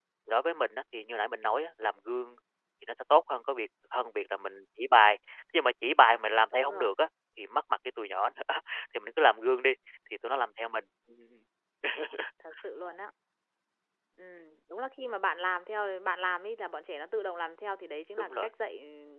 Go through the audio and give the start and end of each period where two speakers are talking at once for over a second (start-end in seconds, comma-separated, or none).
none